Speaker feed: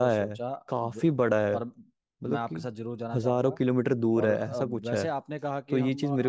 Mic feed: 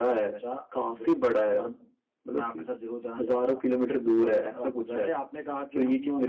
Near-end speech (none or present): none